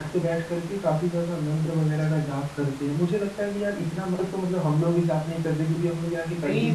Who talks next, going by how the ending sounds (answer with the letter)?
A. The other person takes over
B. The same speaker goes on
A